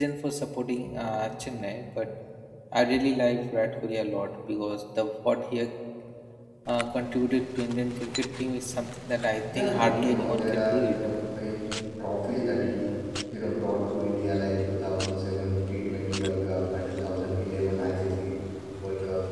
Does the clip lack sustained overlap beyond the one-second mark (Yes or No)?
No